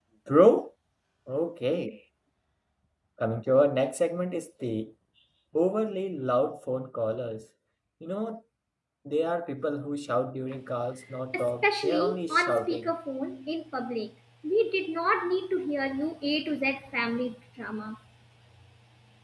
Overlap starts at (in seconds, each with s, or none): 11.3 s